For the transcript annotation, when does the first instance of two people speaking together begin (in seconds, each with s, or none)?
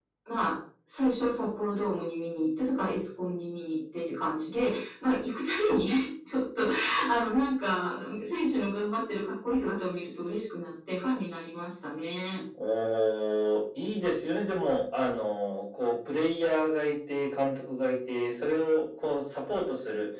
none